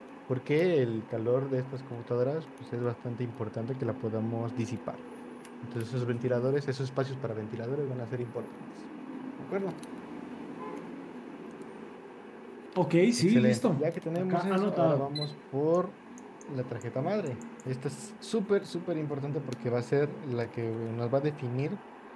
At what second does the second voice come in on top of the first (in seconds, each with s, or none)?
13.2 s